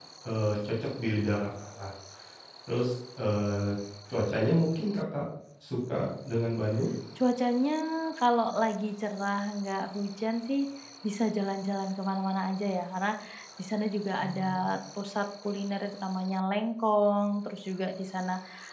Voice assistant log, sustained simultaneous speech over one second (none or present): none